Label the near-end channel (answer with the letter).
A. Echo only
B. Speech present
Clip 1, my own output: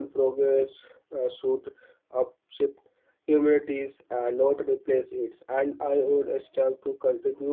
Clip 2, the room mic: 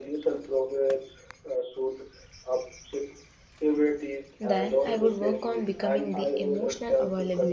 B